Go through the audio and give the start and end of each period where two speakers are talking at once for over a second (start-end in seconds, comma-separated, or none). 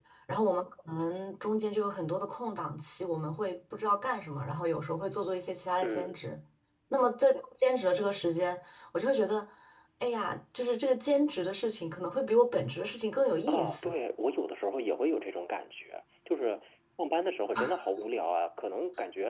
none